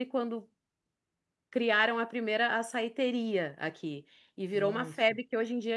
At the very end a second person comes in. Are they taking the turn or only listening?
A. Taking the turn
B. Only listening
B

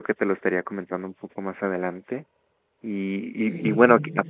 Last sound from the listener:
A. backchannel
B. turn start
A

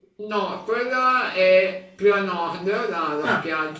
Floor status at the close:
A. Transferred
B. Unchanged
B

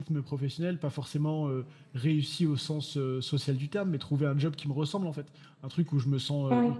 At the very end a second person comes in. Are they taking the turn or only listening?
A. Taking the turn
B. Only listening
B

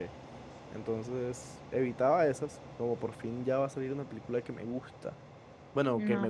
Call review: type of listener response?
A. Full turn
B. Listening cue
B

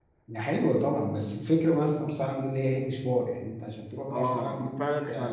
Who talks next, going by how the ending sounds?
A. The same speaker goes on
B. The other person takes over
B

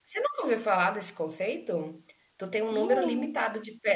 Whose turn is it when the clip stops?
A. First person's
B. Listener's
A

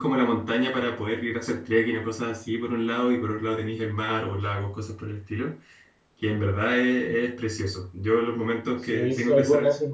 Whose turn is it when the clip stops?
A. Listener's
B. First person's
A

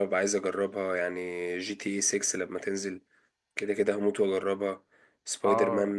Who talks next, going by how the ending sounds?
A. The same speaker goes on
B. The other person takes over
B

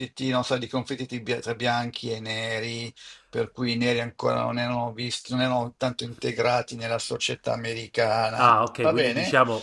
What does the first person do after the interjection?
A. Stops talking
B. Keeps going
A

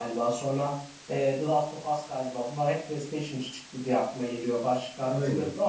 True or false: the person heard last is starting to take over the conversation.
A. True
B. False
B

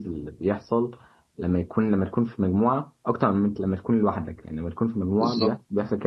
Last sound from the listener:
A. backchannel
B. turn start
A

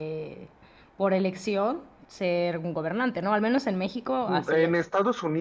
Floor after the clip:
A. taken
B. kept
A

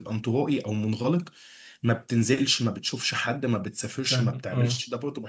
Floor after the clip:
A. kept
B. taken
A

